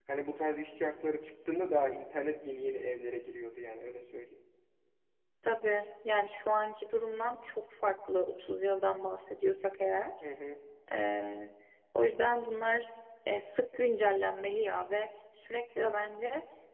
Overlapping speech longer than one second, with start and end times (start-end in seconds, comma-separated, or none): none